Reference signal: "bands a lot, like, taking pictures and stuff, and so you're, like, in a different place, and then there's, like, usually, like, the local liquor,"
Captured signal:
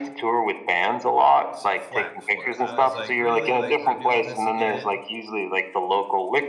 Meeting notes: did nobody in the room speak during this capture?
No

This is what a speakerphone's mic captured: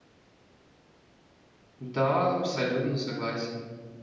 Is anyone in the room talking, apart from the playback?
Yes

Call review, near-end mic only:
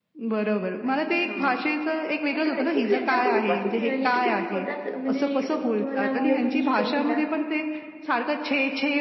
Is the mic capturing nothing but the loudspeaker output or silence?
No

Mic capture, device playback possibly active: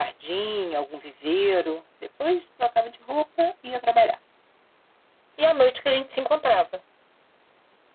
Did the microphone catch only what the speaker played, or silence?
Yes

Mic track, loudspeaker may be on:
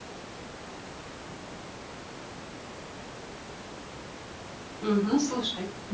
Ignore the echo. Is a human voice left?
Yes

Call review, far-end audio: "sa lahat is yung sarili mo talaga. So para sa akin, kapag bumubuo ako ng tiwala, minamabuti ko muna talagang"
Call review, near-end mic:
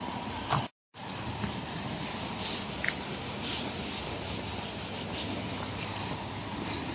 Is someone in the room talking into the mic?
No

